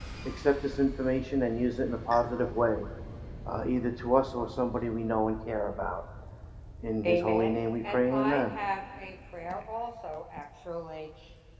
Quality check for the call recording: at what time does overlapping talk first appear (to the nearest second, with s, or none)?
7 s